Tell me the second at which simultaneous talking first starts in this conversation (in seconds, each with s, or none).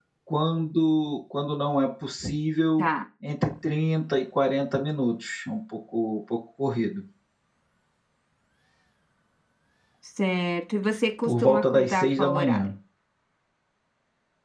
11.2 s